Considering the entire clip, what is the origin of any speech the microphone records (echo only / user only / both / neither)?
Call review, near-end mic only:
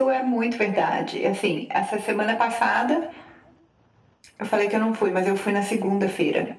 echo only